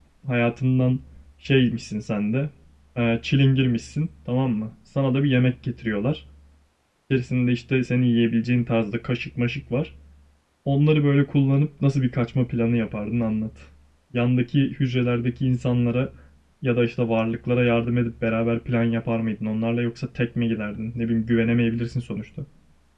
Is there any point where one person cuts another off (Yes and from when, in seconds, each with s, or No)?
No